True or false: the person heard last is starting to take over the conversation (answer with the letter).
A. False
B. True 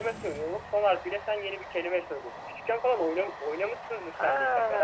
B